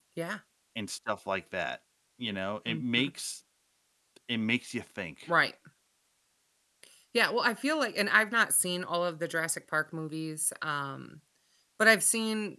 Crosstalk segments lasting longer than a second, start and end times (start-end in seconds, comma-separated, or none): none